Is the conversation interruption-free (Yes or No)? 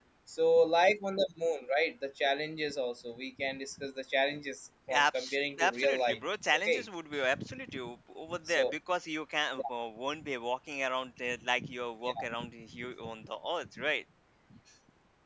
No